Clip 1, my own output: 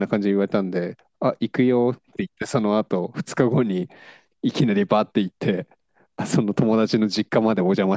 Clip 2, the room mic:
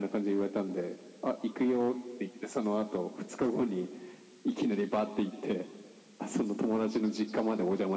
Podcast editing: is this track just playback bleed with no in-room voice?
Yes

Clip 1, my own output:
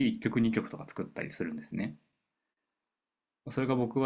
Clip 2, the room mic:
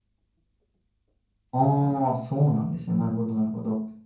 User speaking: Yes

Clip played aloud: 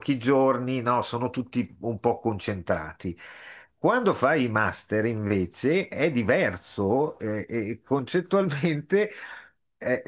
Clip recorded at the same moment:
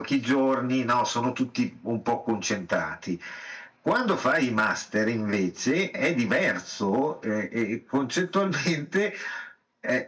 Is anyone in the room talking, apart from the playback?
No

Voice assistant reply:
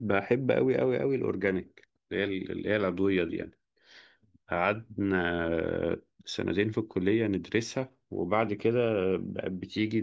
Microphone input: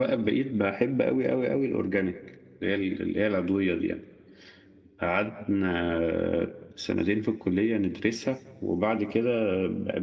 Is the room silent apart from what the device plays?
Yes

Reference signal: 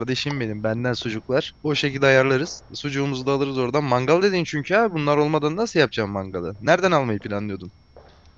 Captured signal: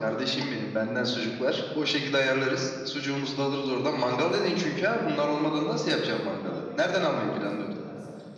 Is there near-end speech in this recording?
Yes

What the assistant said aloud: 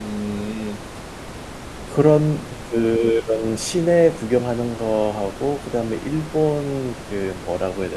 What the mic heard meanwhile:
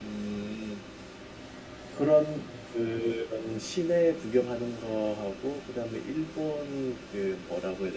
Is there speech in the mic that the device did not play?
No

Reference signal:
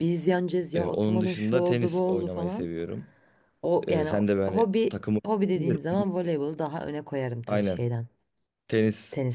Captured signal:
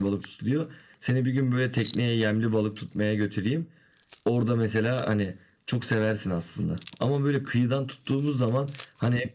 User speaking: Yes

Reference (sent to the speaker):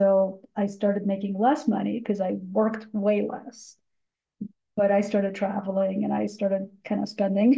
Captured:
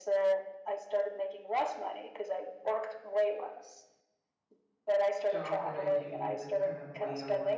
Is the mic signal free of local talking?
No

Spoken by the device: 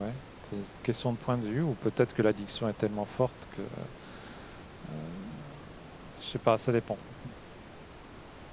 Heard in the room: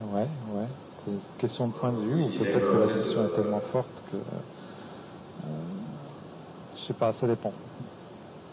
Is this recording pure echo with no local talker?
No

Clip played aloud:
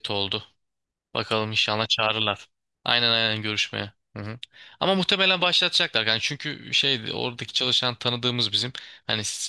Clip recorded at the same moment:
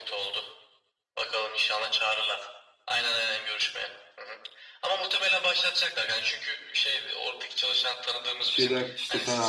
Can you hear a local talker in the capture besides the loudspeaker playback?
Yes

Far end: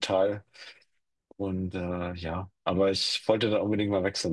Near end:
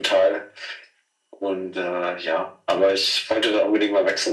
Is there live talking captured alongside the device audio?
No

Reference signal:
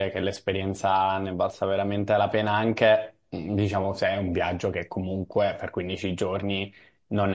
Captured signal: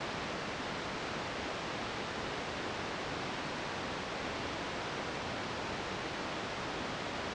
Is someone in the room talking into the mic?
No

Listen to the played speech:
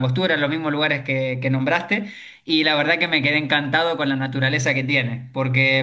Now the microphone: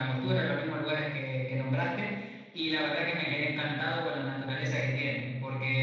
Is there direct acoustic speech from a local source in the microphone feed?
No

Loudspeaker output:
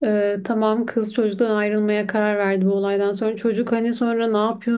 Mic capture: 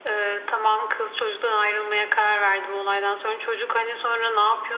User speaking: No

